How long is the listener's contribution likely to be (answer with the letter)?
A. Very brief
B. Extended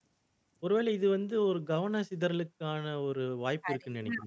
B